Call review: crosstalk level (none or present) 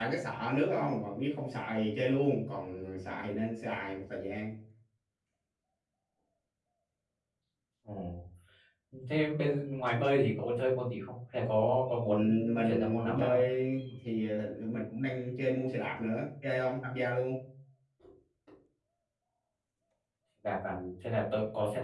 present